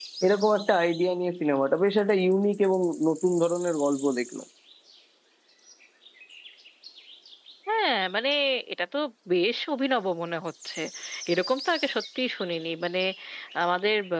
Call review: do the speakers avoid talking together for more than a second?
Yes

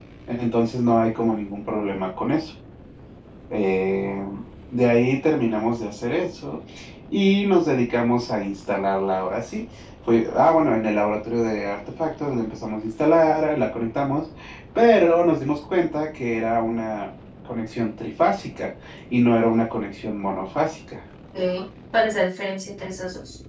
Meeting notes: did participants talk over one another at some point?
No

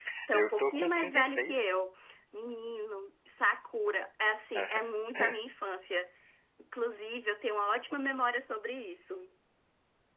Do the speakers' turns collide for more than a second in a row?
Yes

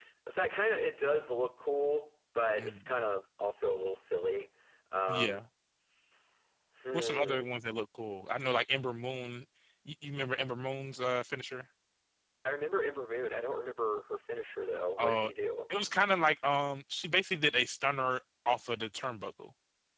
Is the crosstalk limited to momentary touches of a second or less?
Yes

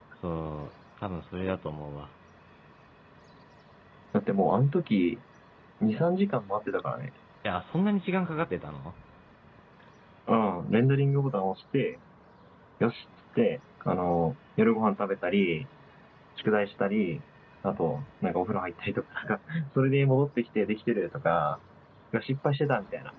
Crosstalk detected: No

